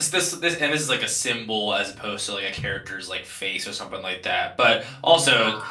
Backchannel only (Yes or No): Yes